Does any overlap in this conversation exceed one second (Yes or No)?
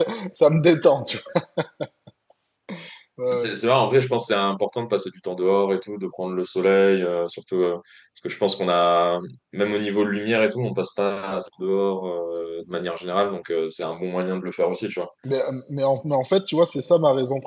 No